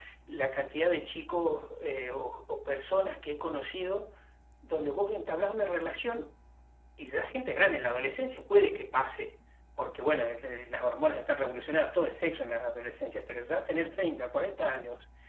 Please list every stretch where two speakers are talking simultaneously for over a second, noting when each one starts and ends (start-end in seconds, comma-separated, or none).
none